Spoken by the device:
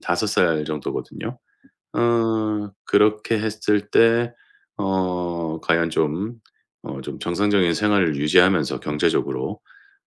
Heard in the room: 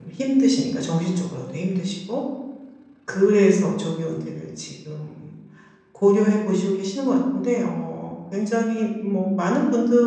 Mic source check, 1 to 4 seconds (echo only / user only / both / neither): user only